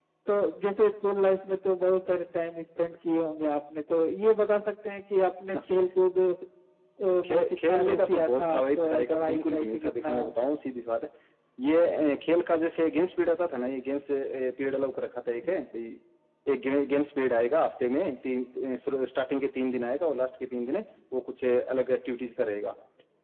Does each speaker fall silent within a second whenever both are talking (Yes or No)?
No